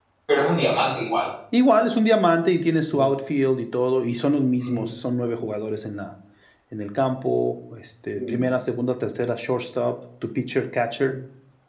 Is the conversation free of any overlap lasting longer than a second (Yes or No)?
Yes